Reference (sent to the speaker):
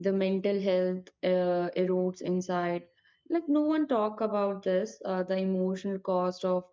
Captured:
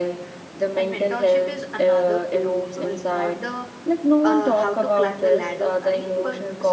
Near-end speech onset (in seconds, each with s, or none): 0.8 s